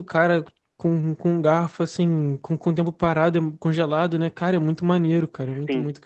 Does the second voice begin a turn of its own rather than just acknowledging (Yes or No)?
Yes